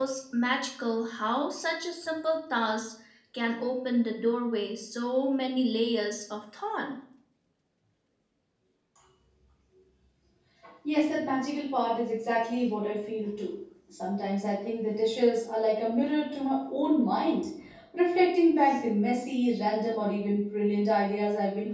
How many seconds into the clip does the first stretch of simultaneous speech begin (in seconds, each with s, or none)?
none